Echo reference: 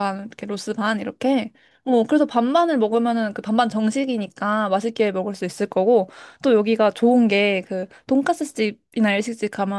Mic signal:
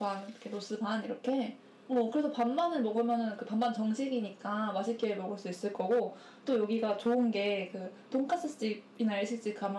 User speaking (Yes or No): No